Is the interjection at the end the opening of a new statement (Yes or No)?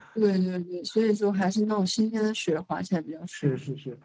Yes